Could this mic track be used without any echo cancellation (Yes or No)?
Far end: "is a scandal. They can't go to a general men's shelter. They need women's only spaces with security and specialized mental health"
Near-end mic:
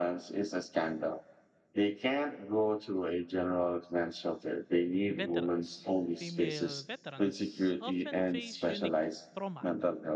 No